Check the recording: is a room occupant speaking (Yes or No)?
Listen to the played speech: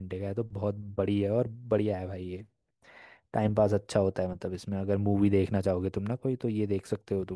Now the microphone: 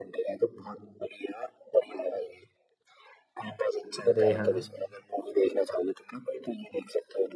Yes